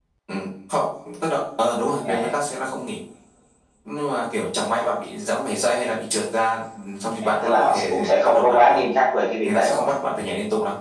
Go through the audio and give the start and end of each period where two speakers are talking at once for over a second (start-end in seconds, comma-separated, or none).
7.2-8.8